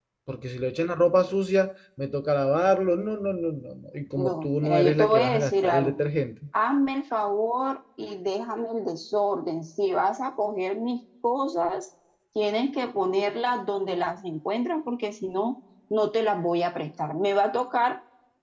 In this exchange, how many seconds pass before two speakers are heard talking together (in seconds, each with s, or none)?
4.2 s